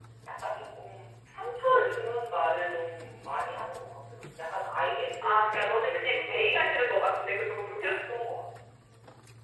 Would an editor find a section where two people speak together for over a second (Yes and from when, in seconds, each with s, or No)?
Yes, from 5.2 s